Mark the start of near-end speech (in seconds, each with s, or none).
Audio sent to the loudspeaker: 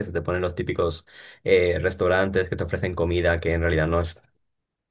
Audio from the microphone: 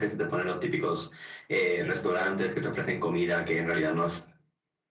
none